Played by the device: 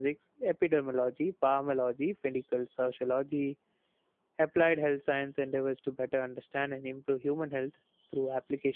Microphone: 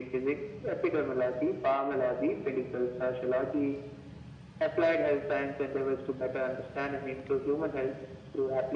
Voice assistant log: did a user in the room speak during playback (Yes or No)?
No